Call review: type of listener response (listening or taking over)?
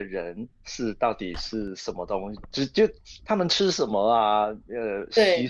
listening